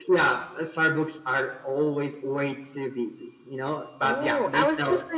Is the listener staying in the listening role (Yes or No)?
No